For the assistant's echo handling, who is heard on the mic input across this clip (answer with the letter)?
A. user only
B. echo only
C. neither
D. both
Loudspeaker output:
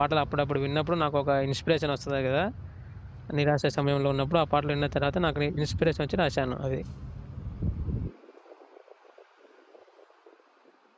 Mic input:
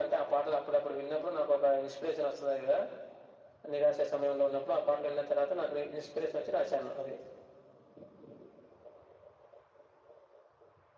B